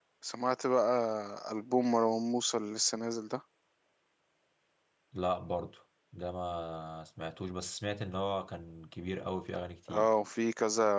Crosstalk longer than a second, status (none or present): none